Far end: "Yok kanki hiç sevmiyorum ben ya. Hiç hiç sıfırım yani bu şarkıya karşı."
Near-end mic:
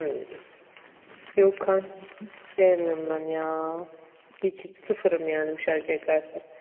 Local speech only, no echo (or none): none